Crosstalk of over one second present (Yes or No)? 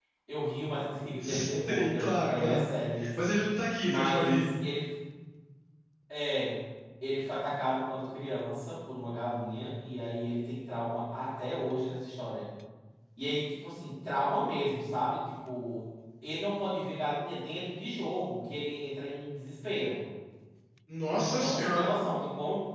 Yes